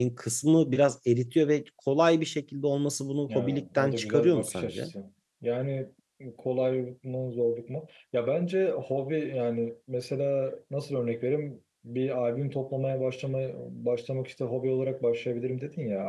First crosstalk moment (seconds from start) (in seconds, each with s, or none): 3.3 s